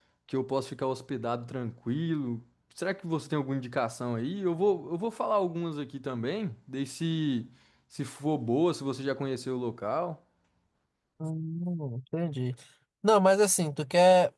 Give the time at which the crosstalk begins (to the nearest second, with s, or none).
none